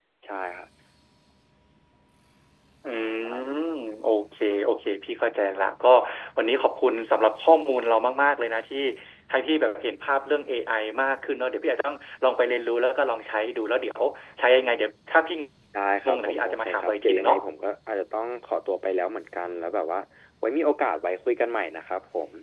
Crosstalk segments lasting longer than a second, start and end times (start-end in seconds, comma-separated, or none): 16.0-17.4